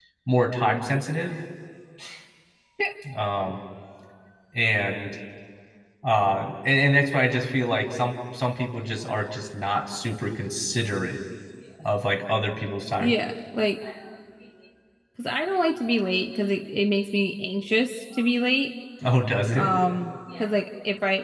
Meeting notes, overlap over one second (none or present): none